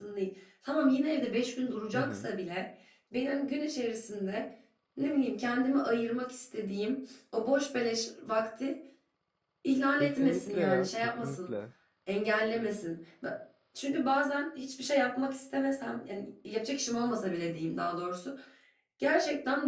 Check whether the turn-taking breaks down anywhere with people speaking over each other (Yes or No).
Yes